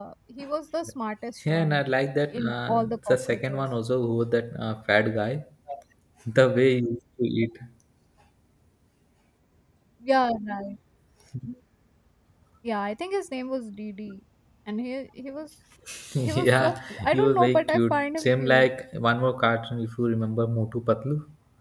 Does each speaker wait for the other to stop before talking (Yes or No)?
No